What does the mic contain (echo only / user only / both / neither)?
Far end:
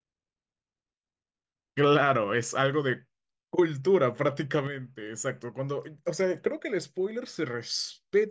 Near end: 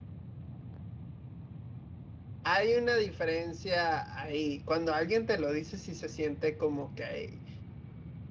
user only